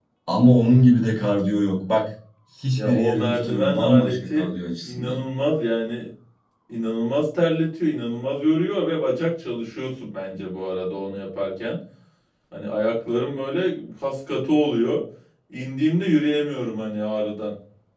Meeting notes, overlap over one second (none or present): present